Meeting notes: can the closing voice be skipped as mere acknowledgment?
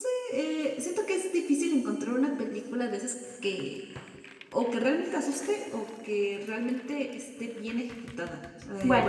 Yes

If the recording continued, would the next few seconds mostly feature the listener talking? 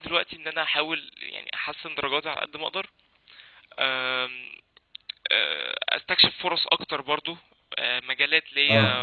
No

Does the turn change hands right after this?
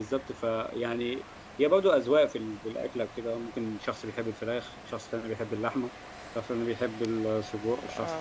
Yes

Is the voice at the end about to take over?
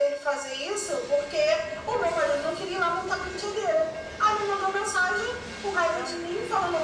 No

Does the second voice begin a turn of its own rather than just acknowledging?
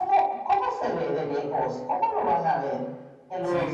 No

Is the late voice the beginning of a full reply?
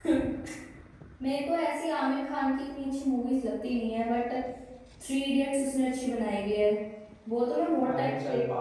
Yes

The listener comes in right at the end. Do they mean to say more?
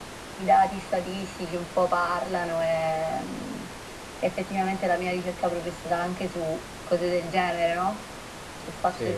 No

